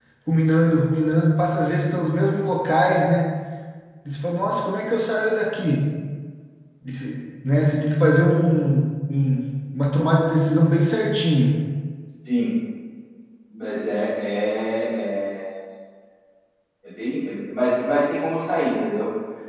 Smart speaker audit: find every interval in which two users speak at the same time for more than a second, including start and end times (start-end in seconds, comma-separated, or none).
none